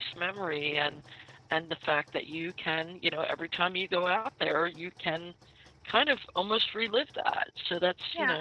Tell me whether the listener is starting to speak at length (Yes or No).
Yes